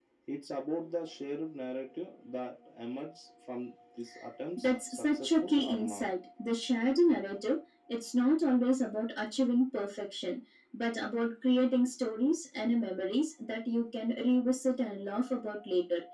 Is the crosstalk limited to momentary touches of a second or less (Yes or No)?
No